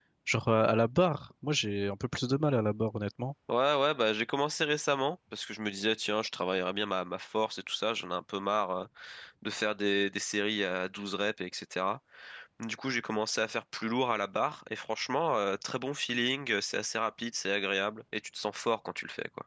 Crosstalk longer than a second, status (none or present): none